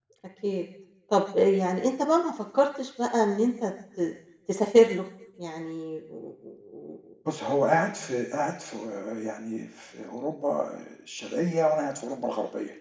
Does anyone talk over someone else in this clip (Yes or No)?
No